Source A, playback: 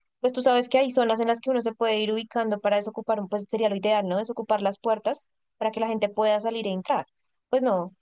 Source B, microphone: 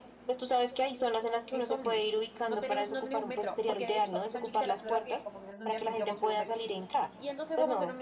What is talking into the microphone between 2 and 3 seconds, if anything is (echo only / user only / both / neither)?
both